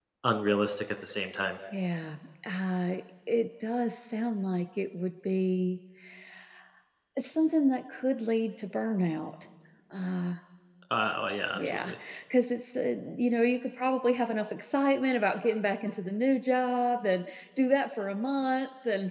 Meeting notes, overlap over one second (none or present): none